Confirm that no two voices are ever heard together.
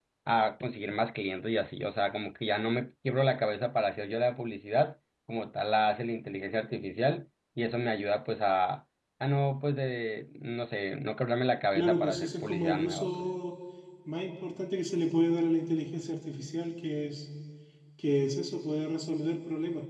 No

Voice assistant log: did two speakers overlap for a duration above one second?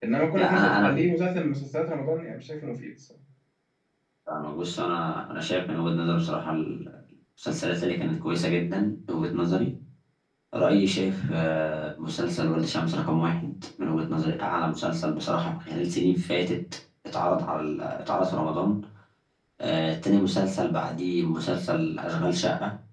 No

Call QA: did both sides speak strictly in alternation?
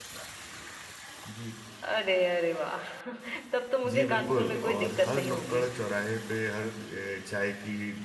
No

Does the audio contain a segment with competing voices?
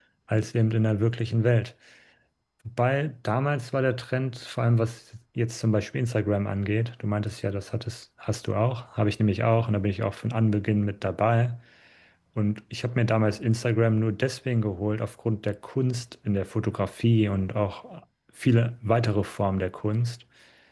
No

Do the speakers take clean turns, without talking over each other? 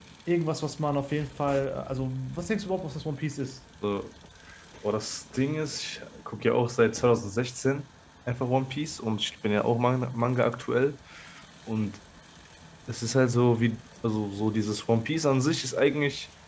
Yes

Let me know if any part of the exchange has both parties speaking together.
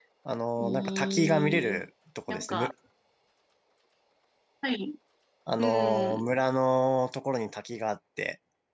Yes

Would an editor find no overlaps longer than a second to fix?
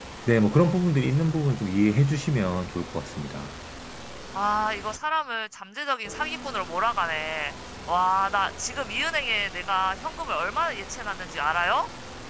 Yes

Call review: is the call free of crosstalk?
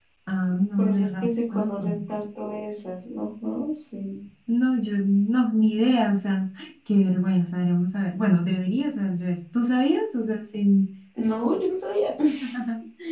No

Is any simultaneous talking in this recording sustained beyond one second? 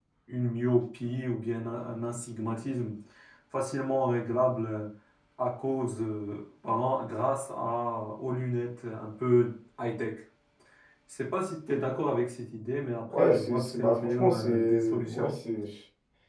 Yes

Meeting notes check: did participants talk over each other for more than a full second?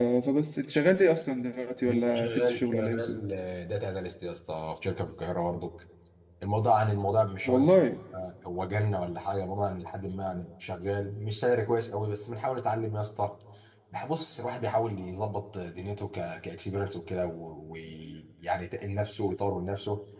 Yes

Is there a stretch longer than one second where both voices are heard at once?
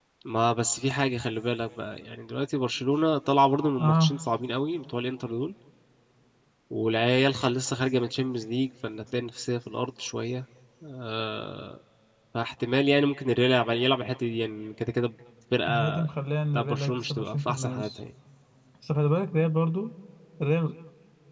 Yes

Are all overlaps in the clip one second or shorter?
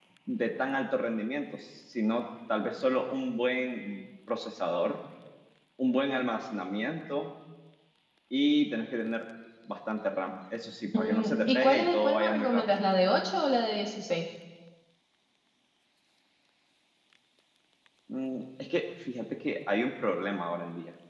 No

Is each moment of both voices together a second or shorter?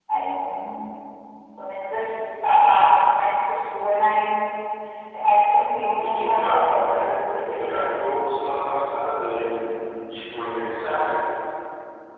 No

